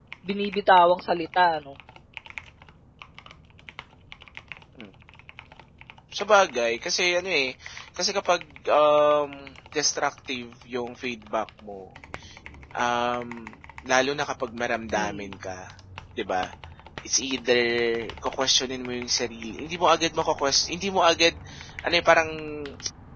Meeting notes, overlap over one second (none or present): none